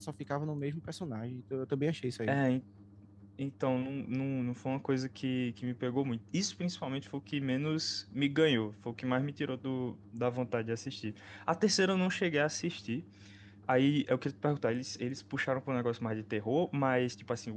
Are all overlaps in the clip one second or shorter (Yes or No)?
Yes